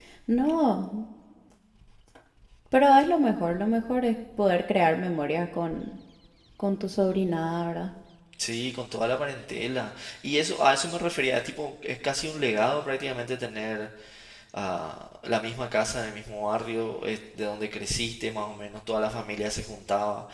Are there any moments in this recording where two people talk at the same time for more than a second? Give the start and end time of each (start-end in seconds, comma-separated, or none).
none